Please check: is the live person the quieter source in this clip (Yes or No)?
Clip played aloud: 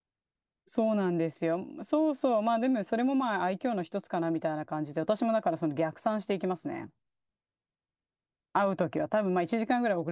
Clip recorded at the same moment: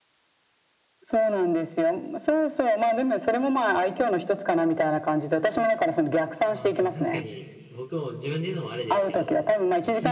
Yes